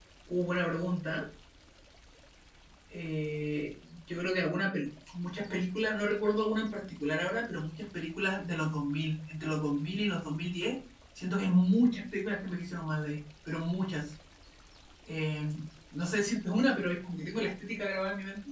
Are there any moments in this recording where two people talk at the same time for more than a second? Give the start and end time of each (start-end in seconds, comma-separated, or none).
none